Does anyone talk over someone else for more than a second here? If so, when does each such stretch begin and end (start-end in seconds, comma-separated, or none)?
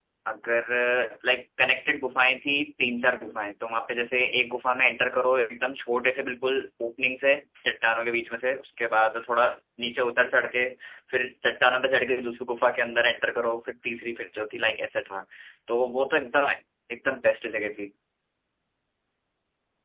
none